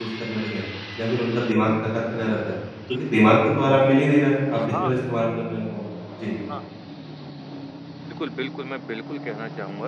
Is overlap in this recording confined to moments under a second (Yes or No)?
Yes